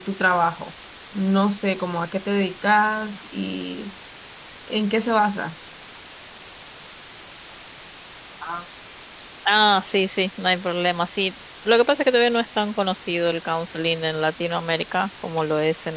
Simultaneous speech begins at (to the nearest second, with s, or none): none